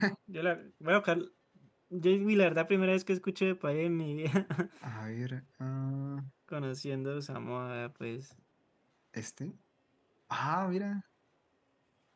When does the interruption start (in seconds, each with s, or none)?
none